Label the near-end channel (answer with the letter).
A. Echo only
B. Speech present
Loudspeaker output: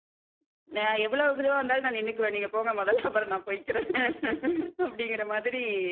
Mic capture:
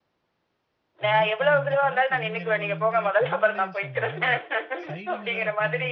B